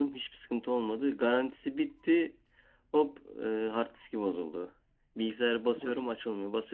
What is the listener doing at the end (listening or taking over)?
listening